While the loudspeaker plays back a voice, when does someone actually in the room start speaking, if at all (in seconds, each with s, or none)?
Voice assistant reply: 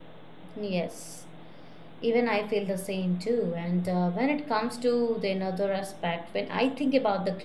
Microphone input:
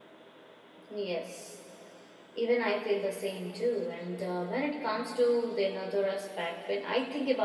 none